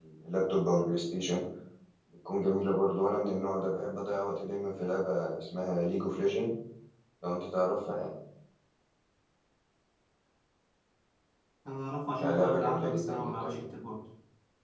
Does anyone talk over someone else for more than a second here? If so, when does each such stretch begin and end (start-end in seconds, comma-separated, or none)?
12.2-13.6